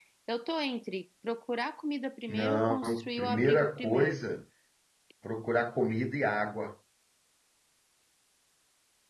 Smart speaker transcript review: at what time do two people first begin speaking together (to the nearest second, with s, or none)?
2 s